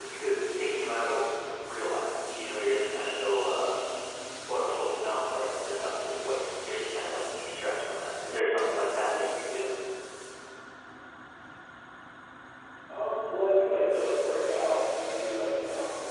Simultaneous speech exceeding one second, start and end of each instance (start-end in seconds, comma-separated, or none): none